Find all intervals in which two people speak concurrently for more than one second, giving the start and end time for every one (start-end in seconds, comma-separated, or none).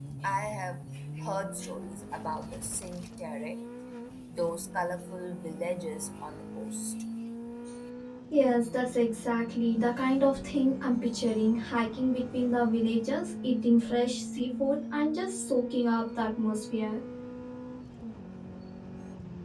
none